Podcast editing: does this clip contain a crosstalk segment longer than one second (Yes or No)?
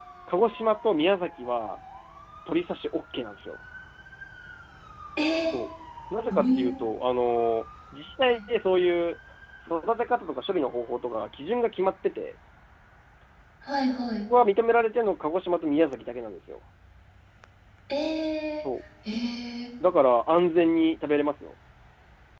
No